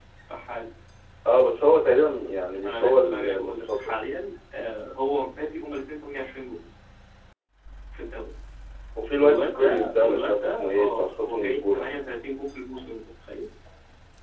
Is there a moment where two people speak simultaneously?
Yes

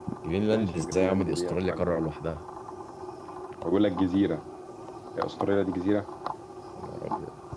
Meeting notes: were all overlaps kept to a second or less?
No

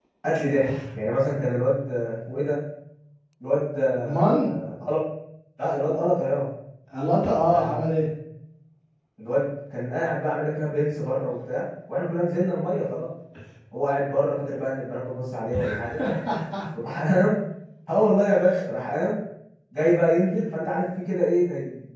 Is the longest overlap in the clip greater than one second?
No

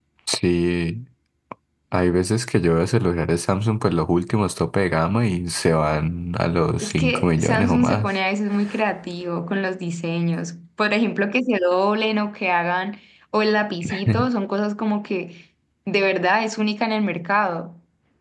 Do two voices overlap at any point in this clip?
Yes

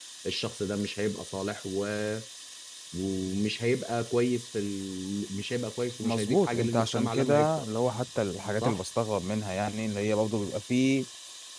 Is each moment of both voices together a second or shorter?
No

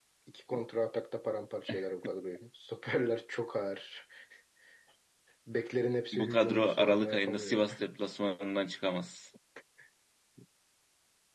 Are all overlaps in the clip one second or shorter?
No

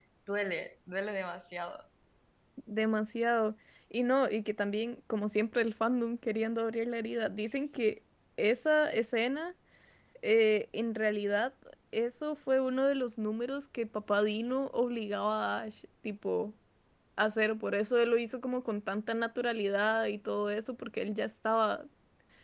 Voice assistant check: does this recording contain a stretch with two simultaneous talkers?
No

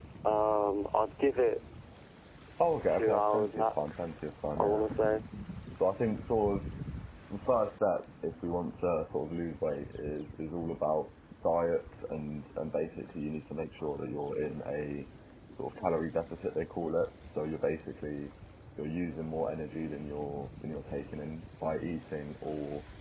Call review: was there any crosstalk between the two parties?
Yes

